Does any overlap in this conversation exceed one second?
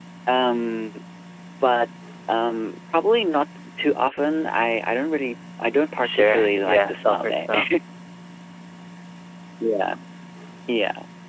Yes, from 5.9 s

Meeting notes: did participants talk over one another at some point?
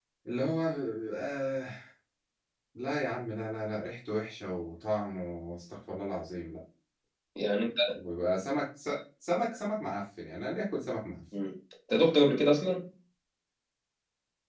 No

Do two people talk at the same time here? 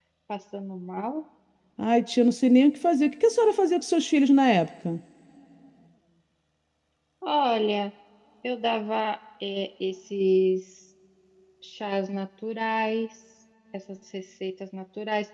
No

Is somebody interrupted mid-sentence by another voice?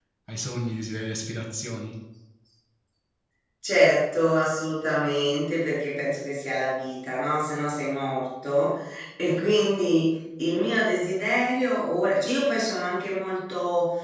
No

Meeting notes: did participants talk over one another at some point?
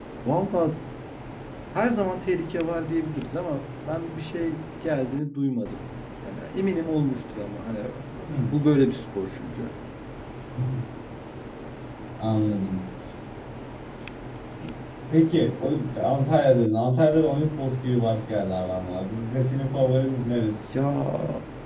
No

